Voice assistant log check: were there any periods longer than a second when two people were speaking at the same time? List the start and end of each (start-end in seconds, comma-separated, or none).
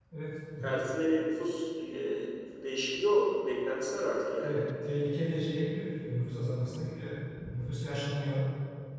none